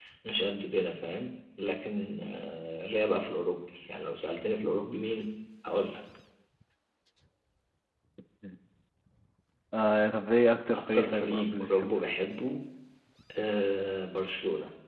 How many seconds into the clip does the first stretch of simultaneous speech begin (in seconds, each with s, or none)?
10.7 s